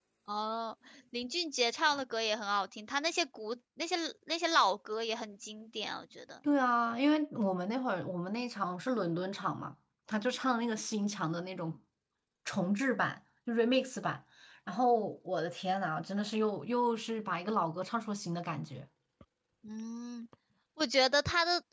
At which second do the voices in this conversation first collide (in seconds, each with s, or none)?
none